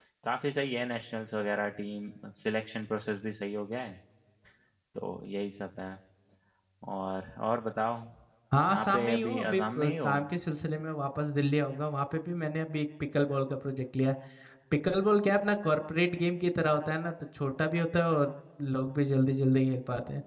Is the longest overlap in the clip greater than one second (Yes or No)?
Yes